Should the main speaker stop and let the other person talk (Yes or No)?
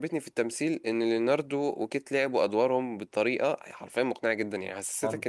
No